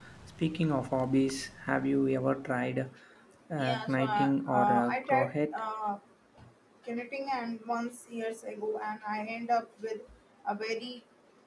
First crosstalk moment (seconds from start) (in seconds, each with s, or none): 3.6 s